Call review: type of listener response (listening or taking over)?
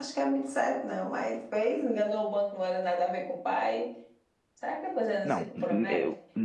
taking over